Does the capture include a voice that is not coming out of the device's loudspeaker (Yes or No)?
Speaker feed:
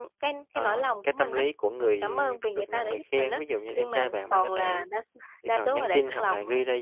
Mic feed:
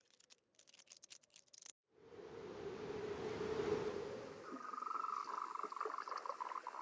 No